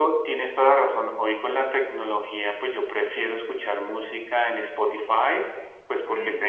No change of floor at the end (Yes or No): Yes